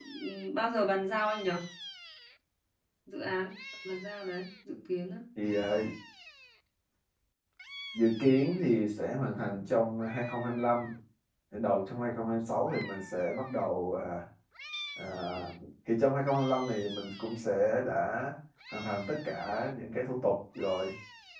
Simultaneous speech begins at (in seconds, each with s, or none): none